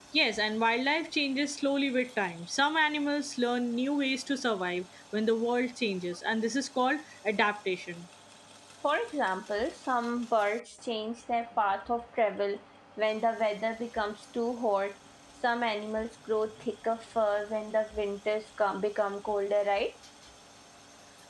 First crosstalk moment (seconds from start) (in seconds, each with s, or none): none